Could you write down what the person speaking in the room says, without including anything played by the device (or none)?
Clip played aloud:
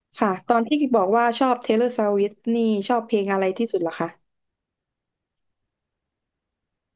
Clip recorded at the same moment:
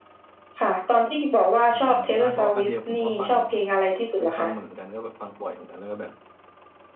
อืมอืมไม่เพราะอเดียผมก็ฟังเคยฟังมาเหมือนกันก็แบบฟังบ่อยเหมือนกันแล้วก็แบบ